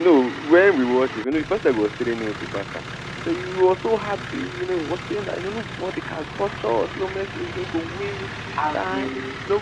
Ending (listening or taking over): listening